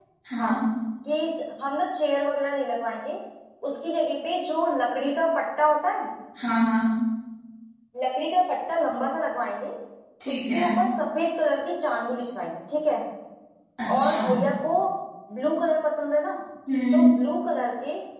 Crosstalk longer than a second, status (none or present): none